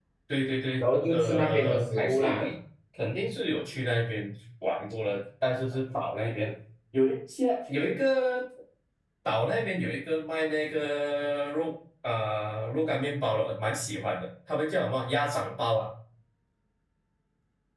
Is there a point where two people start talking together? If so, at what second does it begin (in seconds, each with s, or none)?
0.8 s